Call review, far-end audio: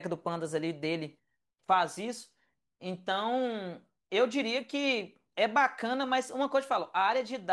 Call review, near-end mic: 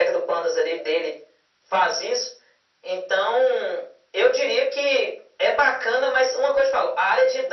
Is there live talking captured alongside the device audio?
No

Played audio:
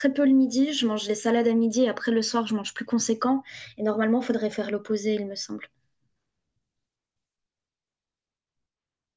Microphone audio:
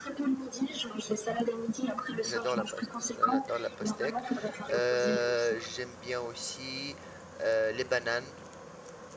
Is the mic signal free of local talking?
No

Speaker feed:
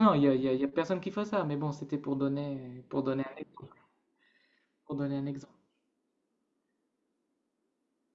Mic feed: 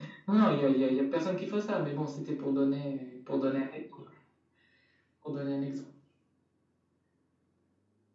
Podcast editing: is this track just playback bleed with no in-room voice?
Yes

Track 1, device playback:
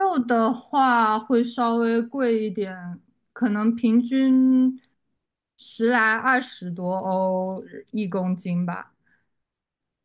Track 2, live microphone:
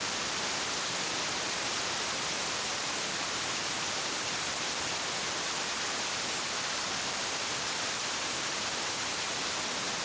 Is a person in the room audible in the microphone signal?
No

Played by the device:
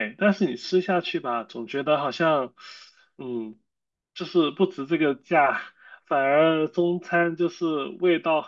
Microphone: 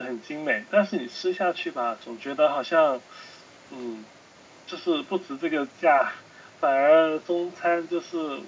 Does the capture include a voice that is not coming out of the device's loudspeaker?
No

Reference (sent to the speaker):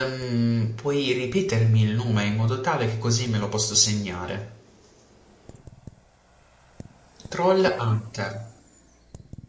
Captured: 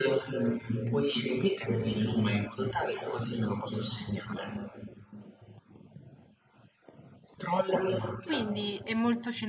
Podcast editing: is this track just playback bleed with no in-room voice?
No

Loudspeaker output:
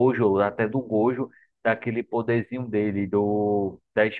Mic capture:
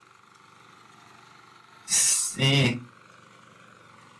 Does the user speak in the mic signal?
Yes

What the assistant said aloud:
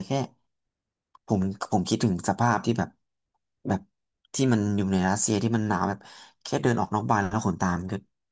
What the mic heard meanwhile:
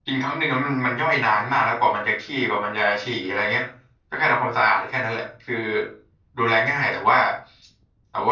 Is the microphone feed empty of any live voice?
No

